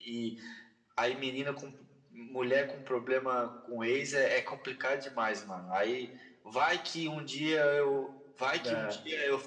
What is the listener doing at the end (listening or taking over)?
listening